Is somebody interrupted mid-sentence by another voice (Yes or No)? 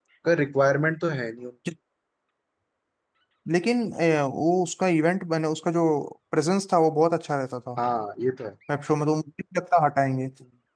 No